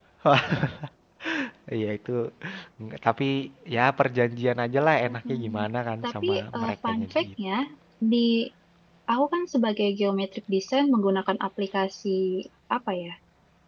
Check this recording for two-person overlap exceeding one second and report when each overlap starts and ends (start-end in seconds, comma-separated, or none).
6.0-7.5